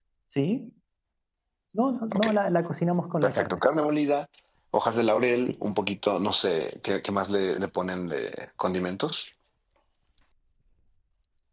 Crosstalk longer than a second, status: none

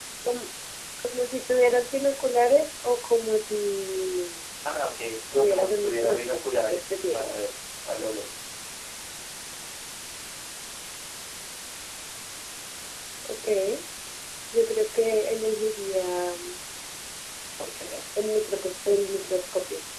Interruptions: present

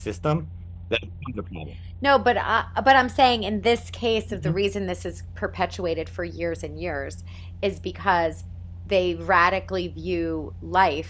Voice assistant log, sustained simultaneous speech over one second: none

